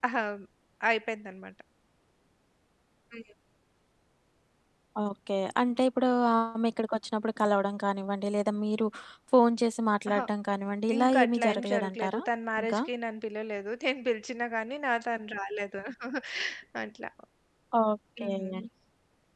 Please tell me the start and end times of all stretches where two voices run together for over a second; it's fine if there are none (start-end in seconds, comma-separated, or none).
11.0-12.2